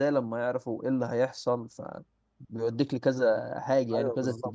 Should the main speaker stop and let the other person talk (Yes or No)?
Yes